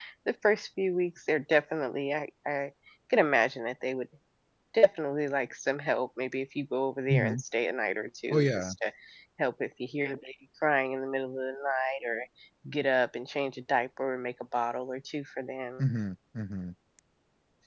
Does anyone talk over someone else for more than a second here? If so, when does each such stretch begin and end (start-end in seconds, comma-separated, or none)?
none